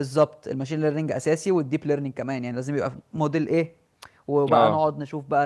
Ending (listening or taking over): listening